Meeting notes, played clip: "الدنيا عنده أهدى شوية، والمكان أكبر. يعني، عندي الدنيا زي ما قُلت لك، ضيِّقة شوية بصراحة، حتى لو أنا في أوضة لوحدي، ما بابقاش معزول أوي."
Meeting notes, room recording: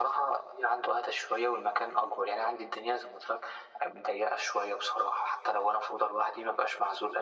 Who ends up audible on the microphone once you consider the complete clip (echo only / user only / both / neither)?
echo only